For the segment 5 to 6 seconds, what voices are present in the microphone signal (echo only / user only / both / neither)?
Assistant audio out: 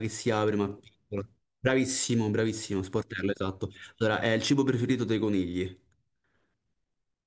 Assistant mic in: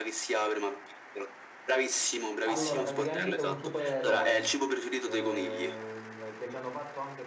both